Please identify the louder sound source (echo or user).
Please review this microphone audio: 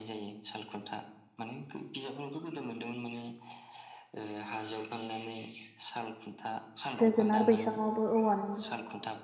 user